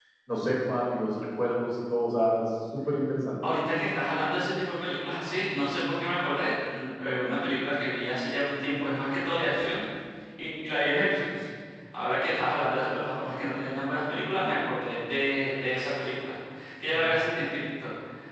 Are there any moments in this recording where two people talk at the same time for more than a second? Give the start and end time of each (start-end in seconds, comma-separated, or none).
none